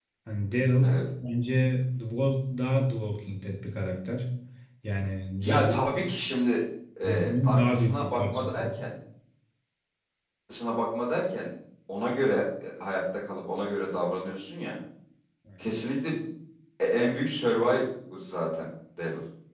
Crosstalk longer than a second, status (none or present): present